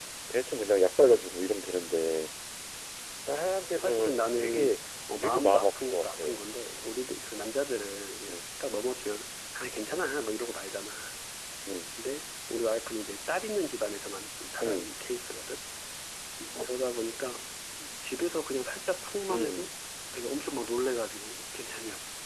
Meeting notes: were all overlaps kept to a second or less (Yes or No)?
No